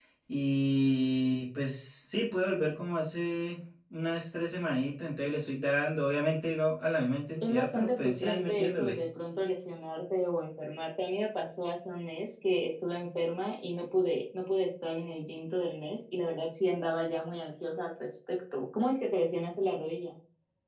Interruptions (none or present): present